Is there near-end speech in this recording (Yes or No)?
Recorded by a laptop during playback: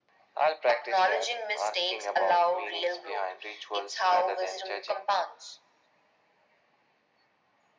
No